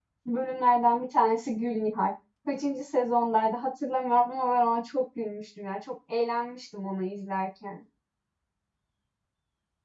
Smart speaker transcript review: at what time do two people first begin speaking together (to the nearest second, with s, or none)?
none